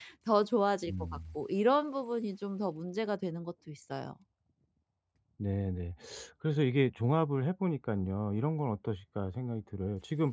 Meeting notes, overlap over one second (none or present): none